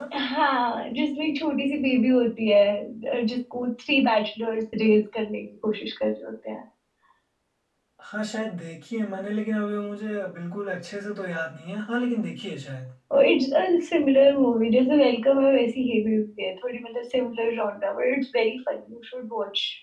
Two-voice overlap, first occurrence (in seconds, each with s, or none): none